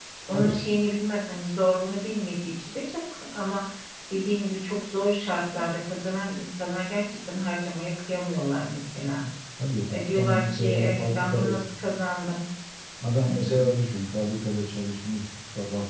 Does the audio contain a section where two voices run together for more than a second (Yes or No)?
Yes